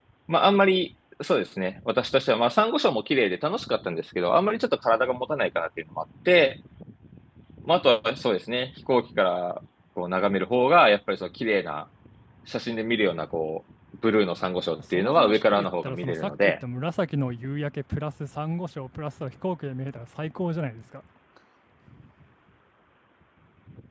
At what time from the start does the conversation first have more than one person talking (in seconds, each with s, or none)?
14.9 s